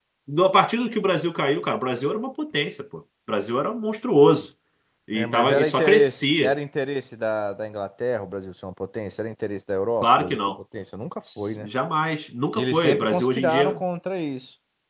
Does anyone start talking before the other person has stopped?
Yes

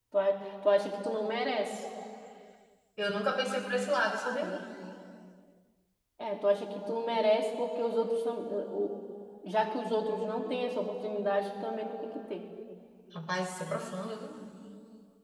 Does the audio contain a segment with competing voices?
No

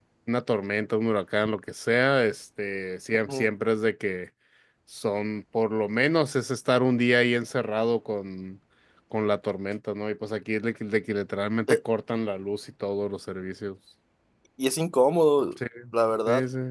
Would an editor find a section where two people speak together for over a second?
No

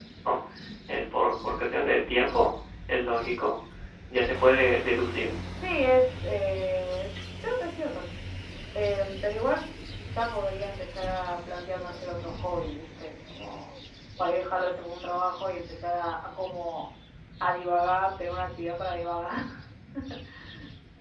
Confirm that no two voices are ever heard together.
Yes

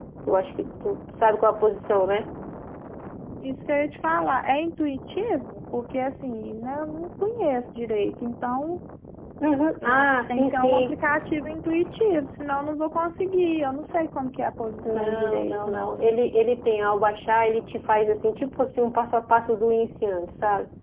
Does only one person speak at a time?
No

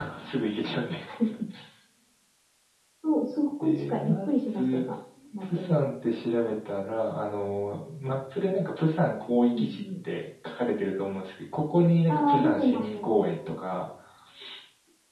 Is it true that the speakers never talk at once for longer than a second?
No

